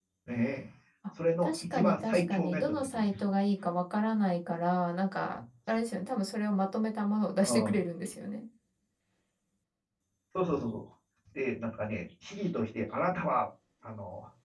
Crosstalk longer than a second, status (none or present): present